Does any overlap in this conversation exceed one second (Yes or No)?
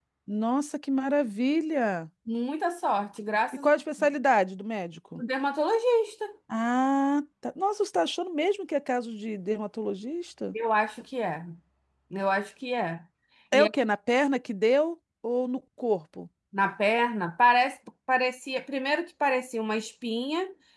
No